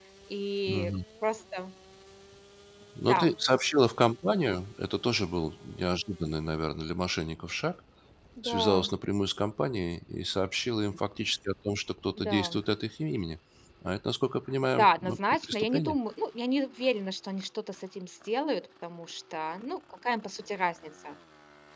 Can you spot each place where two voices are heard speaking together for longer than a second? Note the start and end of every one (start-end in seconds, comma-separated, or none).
14.7-16.0